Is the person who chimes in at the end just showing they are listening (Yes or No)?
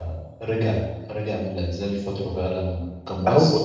No